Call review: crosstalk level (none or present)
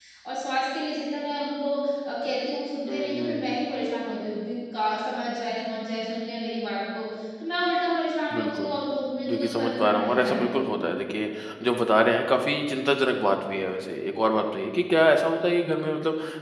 present